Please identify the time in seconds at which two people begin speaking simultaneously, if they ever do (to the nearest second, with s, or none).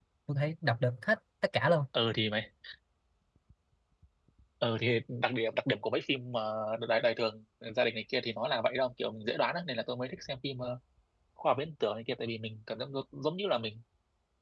none